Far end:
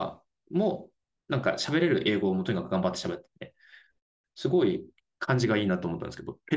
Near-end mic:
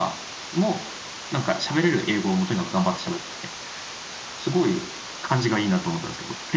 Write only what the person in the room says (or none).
none